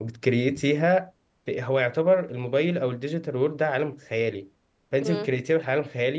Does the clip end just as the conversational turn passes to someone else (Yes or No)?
No